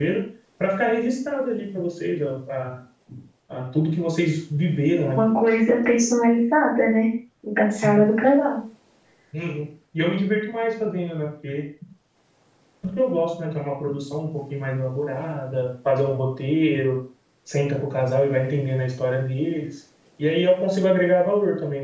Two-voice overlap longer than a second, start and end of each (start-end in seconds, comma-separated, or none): none